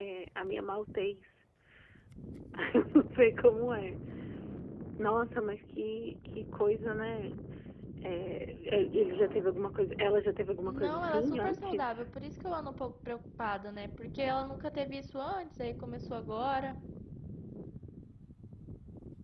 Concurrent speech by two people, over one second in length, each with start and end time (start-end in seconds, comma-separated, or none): 10.6-12.0